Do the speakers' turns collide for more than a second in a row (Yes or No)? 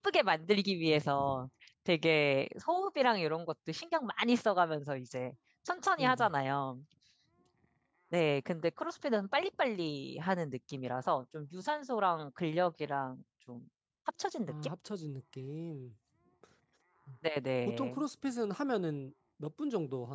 No